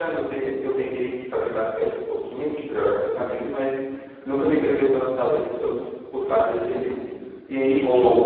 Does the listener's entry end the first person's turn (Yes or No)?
No